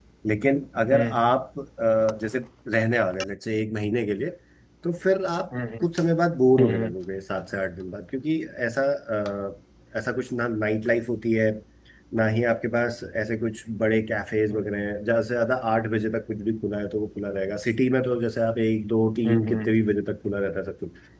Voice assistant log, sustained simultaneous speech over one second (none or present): none